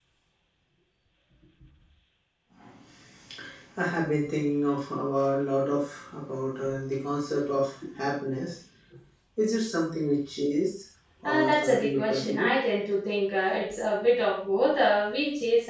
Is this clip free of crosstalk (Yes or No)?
No